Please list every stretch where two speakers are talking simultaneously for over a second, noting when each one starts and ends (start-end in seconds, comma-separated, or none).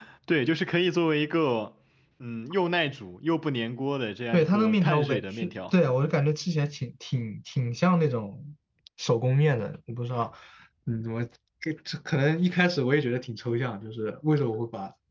4.3-5.7